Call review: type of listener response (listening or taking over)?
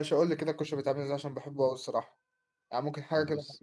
listening